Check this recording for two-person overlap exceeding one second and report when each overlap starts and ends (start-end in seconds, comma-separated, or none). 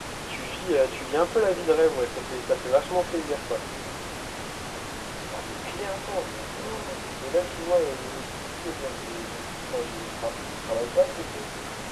none